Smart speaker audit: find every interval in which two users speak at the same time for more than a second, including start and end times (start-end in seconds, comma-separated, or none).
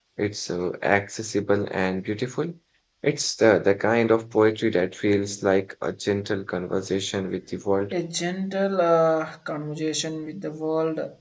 none